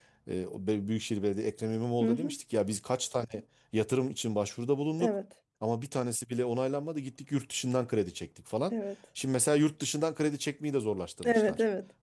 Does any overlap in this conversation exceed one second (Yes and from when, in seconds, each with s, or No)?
No